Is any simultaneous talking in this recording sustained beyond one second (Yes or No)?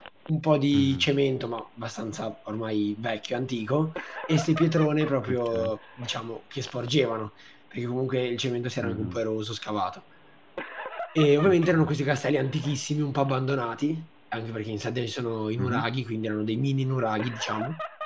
No